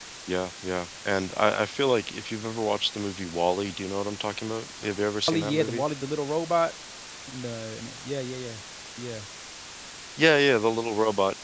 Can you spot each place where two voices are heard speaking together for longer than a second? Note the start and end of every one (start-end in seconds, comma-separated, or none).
none